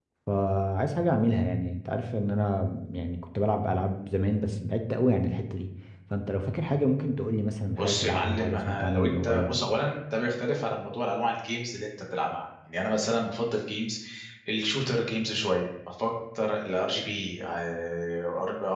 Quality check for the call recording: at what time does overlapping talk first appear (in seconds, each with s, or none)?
7.8 s